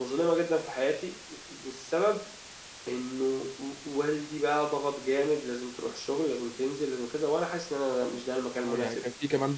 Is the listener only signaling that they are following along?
No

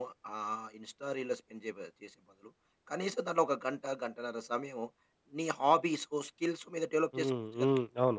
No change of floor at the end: No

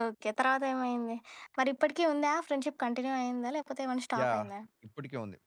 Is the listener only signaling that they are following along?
No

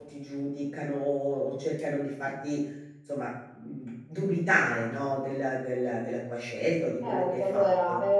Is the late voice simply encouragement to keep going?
No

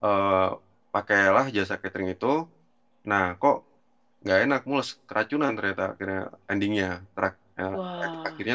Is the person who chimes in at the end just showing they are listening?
Yes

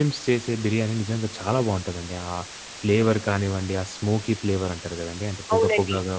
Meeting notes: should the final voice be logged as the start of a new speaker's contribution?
Yes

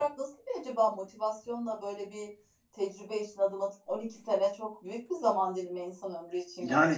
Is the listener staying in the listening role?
No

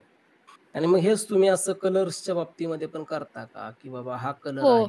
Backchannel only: No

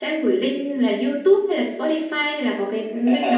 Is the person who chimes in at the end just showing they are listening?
No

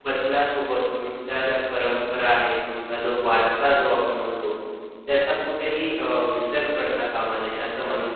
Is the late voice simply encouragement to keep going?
No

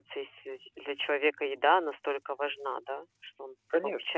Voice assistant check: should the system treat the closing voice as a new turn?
Yes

